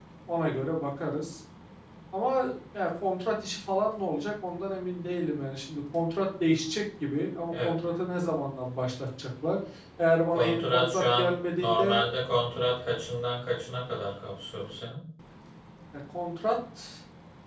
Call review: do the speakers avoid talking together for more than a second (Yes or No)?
No